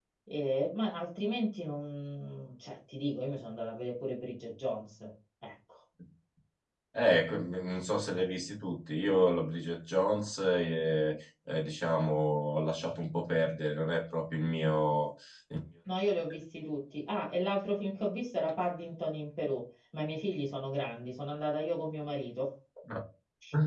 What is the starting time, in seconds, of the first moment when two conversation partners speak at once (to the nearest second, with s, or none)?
none